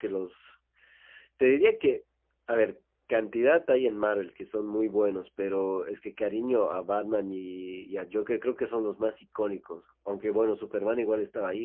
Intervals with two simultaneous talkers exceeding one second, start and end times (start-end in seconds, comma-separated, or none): none